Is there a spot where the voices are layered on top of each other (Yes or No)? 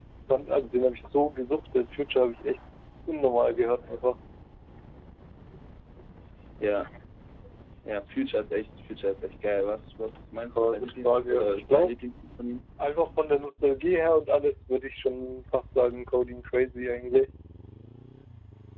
Yes